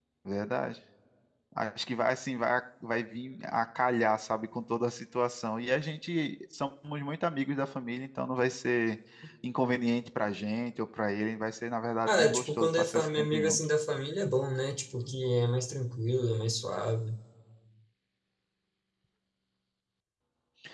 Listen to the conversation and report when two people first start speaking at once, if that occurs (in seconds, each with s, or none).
12.1 s